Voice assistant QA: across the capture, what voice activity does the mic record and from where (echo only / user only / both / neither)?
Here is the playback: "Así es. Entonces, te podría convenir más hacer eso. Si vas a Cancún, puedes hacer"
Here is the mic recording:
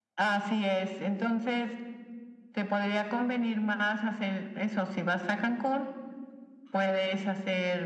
echo only